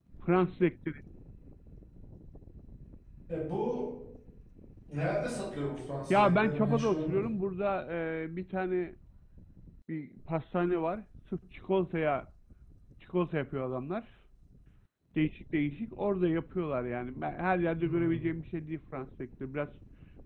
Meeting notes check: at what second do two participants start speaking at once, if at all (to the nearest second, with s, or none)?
6 s